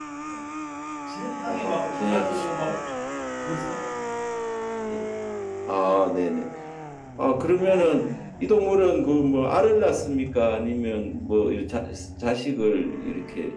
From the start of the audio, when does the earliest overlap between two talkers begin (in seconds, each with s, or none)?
1.5 s